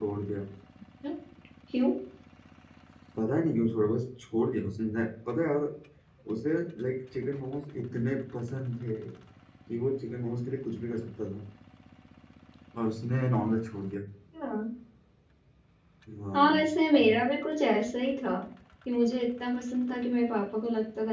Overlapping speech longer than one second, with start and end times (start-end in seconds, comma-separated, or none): none